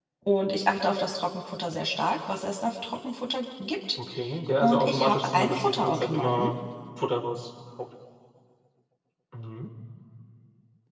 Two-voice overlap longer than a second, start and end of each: 4.6-6.5

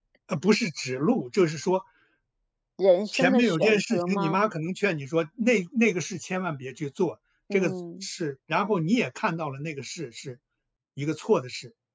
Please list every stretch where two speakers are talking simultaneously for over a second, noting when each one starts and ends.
3.1-4.4

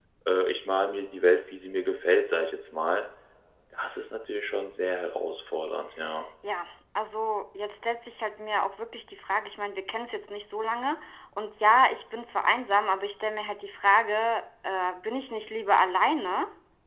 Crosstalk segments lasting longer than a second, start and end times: none

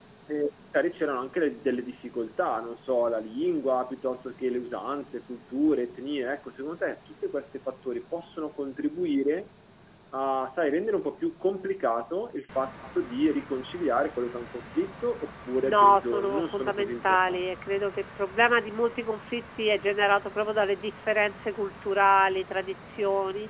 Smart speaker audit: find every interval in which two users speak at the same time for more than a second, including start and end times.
15.6-17.4

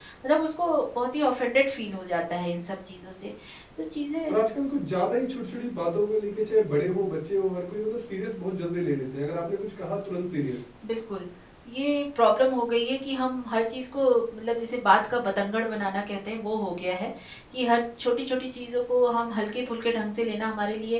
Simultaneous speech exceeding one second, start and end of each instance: none

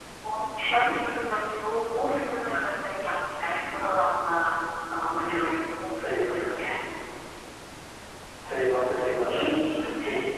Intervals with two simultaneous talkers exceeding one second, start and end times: none

